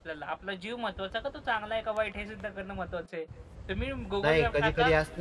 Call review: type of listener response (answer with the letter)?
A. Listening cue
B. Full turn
B